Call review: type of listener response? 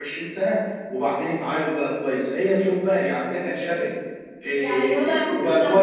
taking over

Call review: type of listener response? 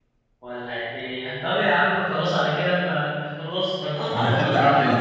taking over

